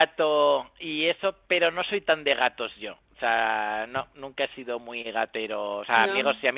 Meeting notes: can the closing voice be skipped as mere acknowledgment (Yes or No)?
Yes